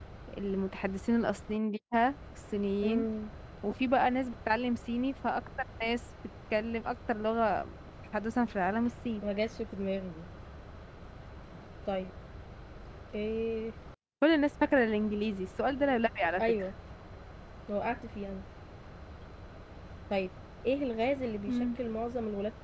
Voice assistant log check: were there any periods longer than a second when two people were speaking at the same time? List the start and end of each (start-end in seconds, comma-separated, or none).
none